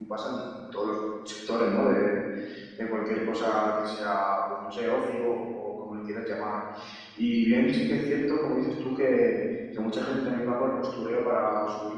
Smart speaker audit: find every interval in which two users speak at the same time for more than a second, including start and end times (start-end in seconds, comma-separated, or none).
none